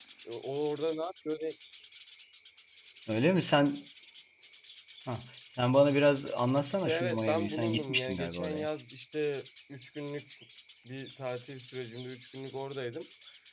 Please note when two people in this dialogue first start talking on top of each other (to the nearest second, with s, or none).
7 s